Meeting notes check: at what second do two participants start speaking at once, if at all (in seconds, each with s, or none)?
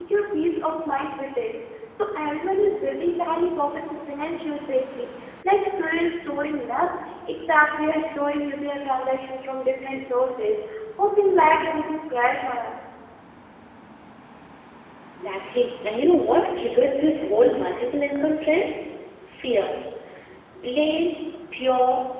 none